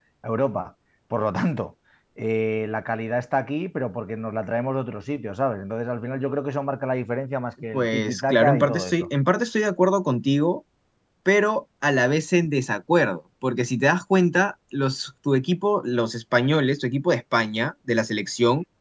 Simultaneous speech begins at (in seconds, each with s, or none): 7.7 s